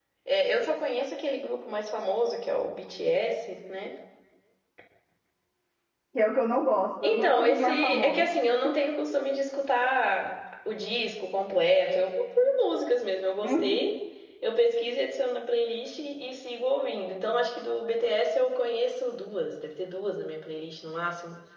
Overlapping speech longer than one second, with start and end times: 7.0-8.3

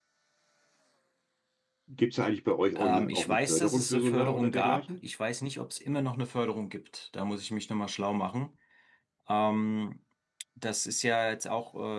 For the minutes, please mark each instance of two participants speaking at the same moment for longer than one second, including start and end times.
2.8-4.8

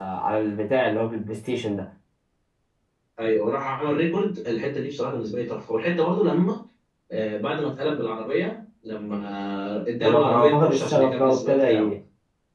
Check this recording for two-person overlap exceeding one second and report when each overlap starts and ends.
10.0-11.9

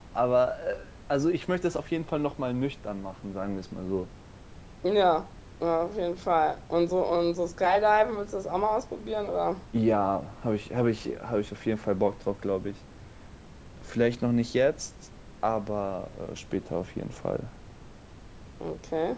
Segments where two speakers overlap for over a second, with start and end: none

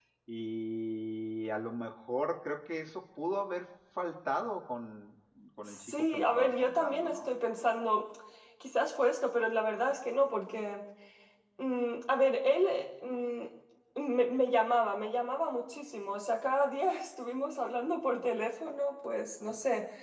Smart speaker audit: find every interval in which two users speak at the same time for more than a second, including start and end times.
5.7-7.3

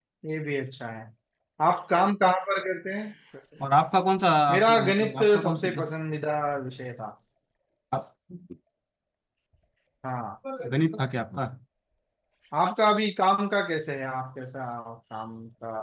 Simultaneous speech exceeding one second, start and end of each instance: 4.5-5.9

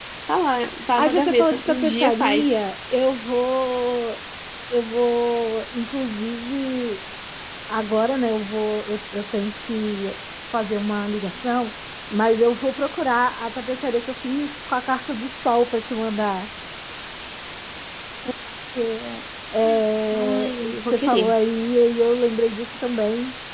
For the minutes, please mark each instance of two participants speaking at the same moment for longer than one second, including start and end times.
1.0-2.6, 20.1-21.3

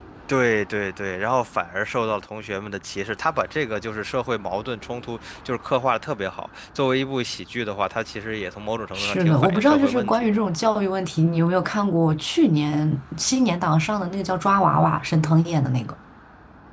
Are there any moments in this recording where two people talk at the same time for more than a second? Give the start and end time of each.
8.9-10.4

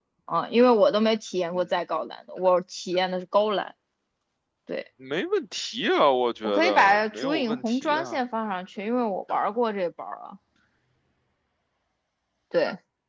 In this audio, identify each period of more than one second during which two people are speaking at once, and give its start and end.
6.4-8.2

